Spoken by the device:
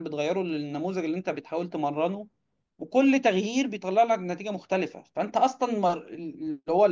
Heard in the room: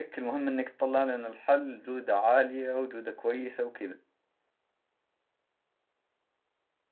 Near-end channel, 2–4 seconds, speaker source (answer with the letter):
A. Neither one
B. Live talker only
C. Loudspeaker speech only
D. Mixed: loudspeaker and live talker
B